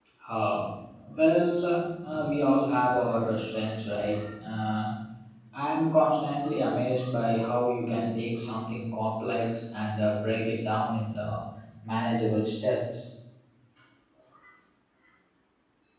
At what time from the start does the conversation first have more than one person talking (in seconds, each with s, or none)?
none